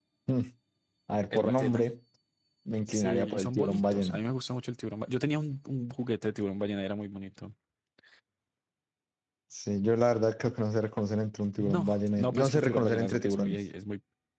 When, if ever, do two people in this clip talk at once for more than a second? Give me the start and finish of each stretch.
2.9-4.2, 11.6-13.6

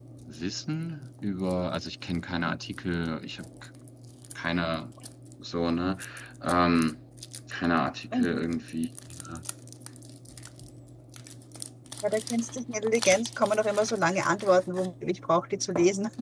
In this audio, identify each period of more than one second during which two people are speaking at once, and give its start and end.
none

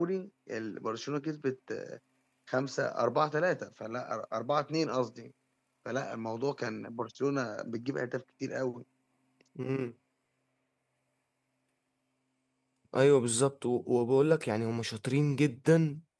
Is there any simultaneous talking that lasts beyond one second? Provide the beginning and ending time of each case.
none

